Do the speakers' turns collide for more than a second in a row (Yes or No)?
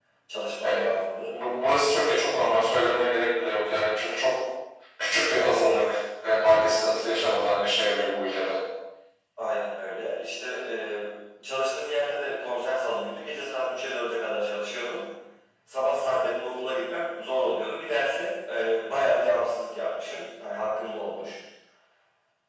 No